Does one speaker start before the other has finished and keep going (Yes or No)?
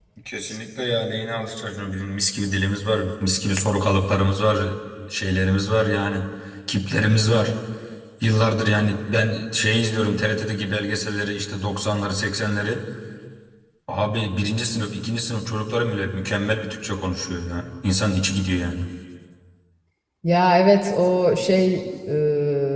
No